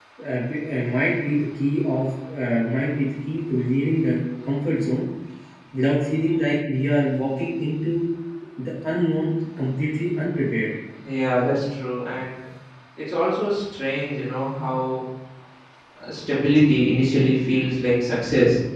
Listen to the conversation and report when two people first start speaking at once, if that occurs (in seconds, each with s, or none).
none